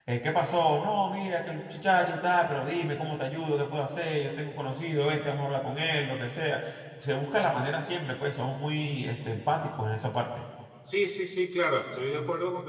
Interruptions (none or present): none